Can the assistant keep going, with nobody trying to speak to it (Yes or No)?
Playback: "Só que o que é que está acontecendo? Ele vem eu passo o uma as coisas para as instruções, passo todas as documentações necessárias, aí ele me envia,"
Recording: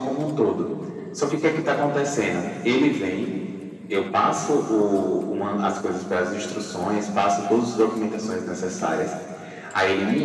Yes